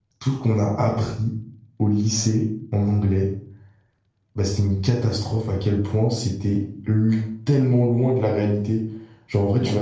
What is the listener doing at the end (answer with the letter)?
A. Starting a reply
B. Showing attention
B